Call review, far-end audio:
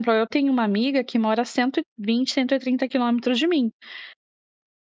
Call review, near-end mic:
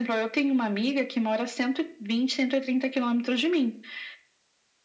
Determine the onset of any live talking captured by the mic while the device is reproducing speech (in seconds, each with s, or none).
none